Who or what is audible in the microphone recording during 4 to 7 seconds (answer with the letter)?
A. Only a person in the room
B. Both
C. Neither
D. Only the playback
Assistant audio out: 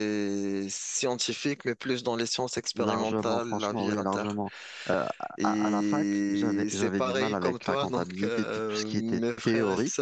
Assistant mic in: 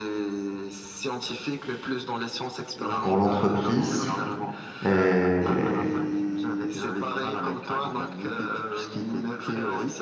B